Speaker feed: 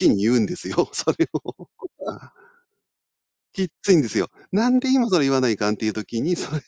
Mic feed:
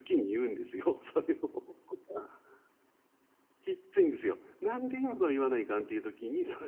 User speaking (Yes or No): No